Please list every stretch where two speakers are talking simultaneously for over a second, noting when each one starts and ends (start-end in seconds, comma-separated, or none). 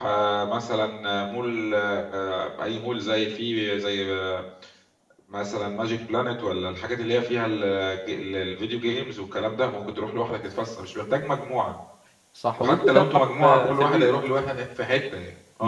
12.6-14.2